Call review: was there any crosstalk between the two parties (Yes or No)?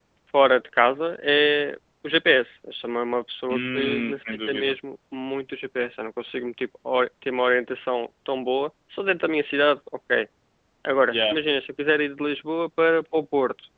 Yes